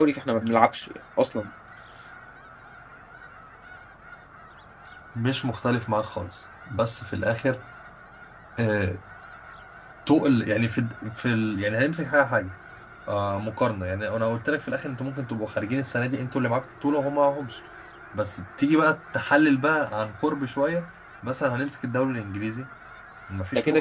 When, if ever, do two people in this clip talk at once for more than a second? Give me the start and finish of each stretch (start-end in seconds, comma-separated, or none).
none